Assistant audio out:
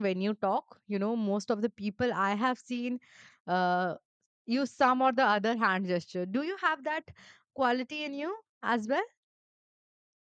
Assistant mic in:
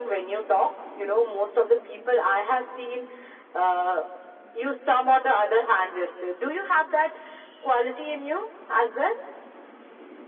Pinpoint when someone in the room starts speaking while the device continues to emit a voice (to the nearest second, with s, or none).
none